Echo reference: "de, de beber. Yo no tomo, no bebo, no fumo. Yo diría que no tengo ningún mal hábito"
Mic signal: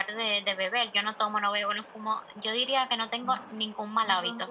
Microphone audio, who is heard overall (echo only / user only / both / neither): both